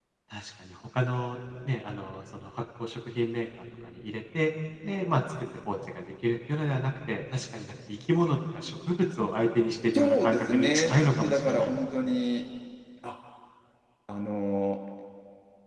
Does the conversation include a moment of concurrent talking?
Yes, from 9.9 s

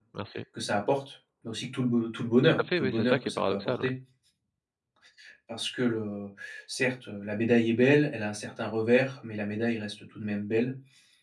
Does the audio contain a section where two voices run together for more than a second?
Yes, from 2.4 s

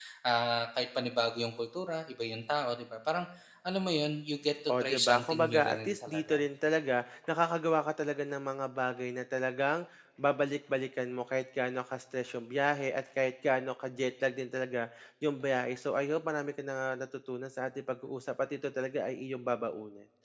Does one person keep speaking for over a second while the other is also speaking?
Yes, from 4.7 s

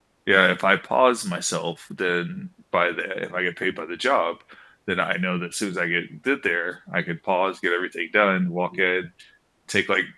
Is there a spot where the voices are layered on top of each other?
No

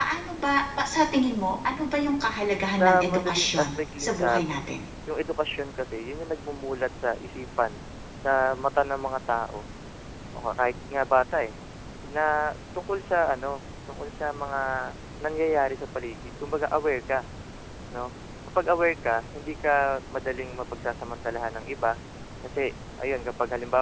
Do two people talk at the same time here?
Yes, from 2.7 s

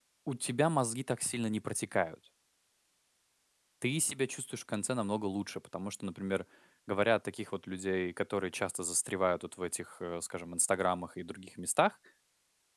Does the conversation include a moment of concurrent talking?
No

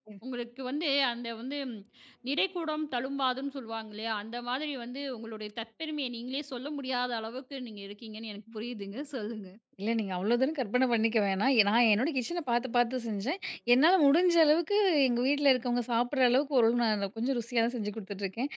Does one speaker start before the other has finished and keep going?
No

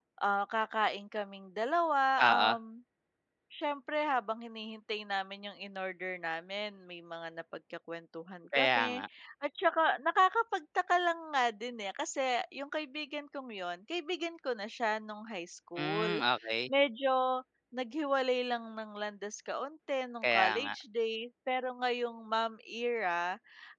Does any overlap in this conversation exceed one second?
No

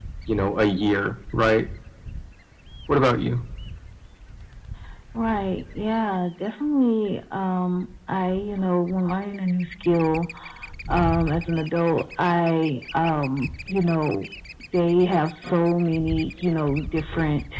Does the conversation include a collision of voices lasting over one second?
No

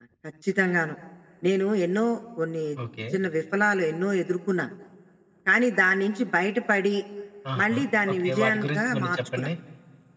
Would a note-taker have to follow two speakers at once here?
Yes, from 7.6 s

